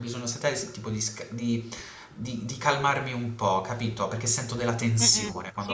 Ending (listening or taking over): taking over